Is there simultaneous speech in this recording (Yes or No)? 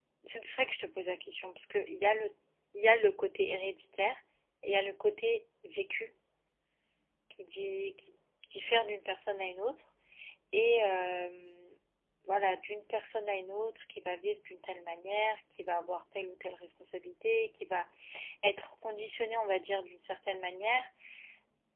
No